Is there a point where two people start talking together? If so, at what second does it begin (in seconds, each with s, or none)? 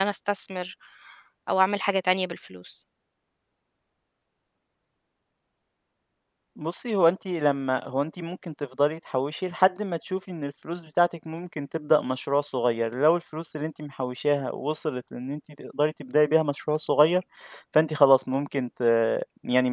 none